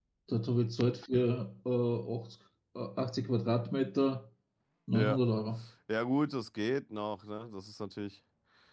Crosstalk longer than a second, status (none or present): none